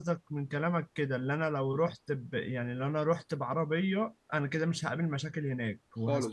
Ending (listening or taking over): taking over